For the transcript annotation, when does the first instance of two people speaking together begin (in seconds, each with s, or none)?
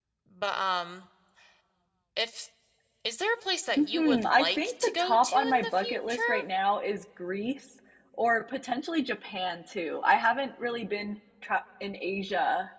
3.8 s